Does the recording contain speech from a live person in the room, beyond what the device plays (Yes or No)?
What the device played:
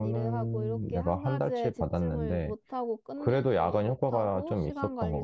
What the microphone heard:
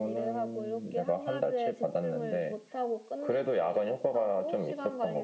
No